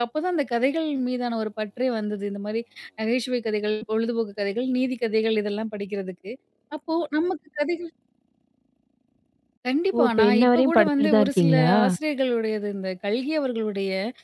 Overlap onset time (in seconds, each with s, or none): 9.9 s